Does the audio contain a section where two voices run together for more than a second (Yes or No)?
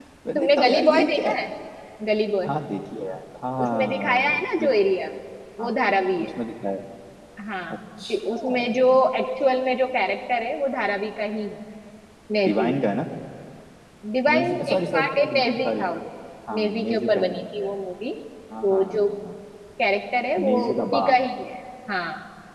Yes